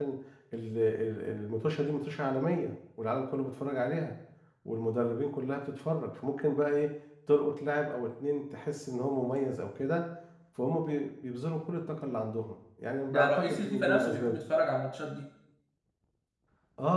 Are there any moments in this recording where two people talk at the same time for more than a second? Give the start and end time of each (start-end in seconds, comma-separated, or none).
13.1-14.4